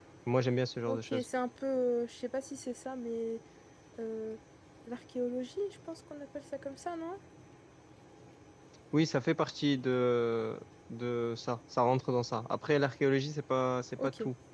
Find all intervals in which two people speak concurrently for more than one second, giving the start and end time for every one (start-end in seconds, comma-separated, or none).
none